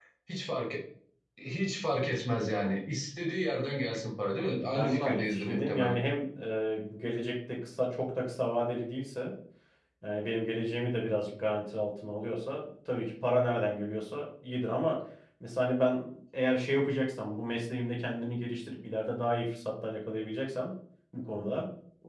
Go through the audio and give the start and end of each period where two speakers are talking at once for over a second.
4.5-6.0

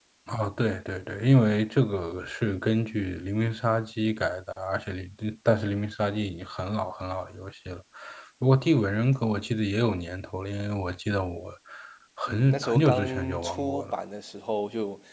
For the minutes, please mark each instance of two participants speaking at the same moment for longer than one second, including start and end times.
12.3-14.0

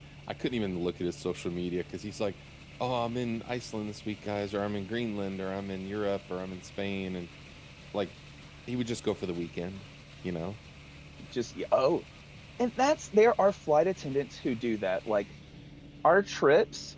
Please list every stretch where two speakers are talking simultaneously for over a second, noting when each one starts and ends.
none

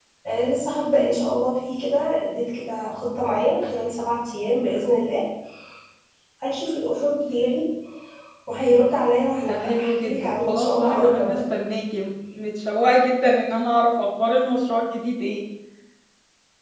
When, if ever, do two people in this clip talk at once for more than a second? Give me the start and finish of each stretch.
9.5-11.4

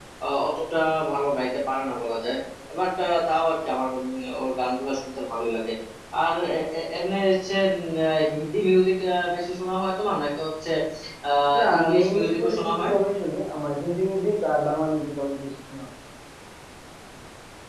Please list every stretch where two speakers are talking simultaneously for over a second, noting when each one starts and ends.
11.6-12.9

